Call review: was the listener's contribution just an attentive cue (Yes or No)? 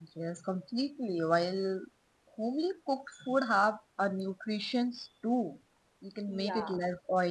Yes